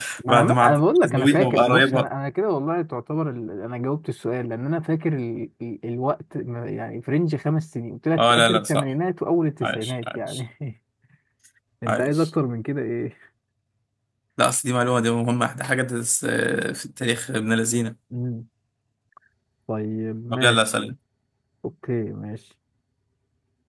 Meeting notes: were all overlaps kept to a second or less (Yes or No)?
No